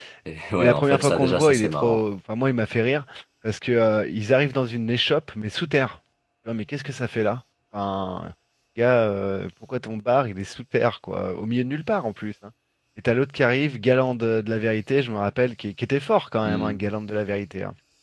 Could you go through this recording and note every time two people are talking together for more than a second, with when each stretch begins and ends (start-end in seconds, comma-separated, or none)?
0.6-2.0